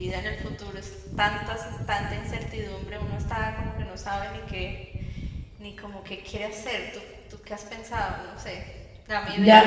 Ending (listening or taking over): taking over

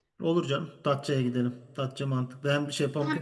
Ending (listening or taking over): taking over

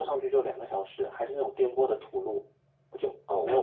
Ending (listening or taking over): taking over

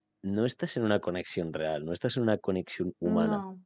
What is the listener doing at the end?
listening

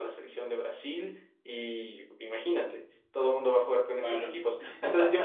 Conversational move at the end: listening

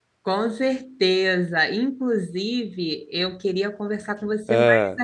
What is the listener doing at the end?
listening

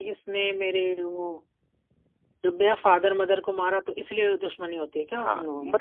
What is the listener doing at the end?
taking over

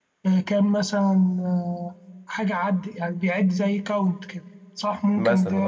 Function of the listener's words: taking over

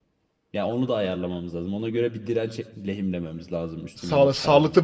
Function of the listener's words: taking over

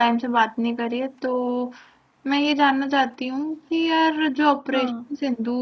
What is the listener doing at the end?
listening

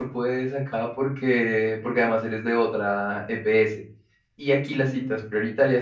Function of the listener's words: listening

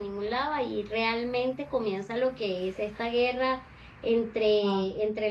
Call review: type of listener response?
listening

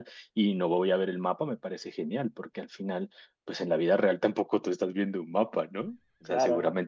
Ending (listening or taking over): listening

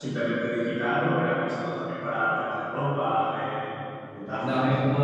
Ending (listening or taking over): taking over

